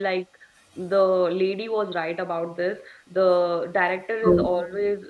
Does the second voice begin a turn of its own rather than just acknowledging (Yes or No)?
No